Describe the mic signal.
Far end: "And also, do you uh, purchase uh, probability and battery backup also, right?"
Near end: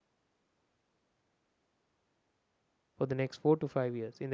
user only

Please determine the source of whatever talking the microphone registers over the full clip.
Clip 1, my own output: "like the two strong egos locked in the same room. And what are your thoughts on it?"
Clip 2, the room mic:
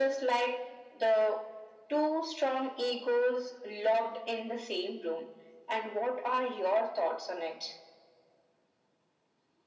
echo only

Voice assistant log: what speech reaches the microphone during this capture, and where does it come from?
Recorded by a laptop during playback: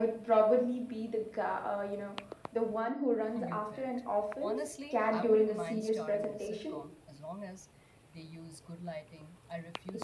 both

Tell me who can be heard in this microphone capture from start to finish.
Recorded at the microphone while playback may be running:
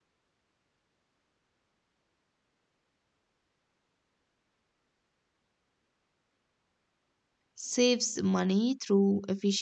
user only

